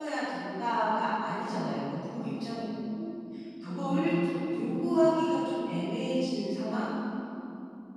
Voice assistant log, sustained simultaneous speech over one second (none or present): none